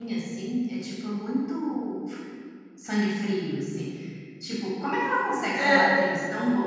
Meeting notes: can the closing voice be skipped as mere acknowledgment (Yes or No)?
Yes